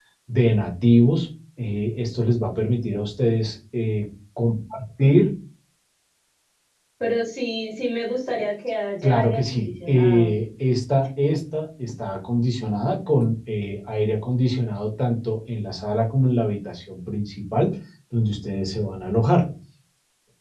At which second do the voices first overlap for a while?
9 s

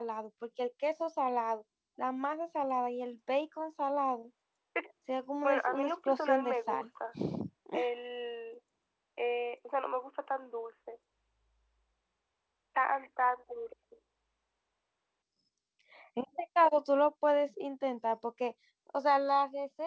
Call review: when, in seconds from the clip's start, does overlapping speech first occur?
5 s

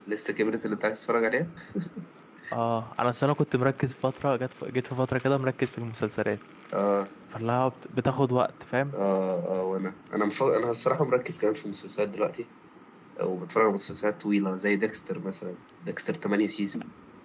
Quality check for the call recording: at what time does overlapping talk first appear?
none

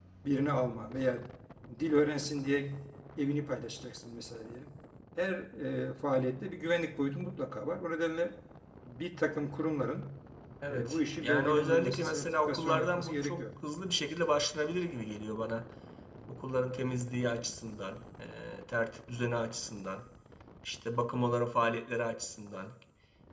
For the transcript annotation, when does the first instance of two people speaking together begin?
11 s

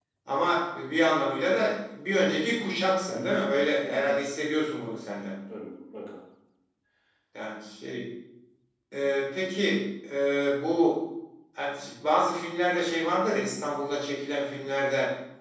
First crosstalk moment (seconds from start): 3 s

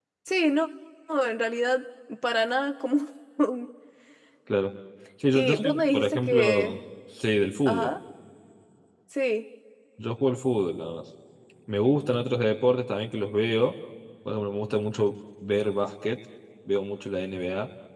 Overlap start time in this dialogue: 5 s

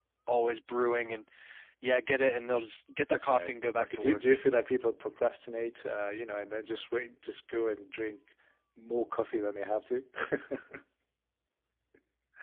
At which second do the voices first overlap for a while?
3 s

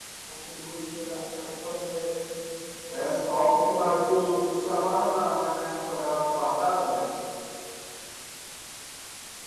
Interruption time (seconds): 3 s

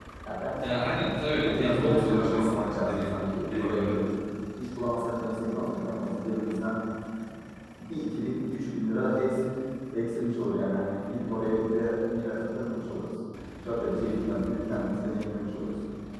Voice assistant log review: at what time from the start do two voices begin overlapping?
1 s

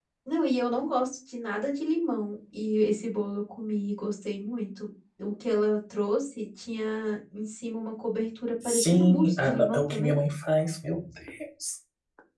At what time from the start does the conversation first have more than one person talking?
9 s

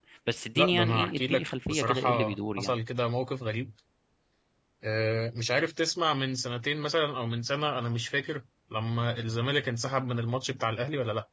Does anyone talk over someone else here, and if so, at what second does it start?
1 s

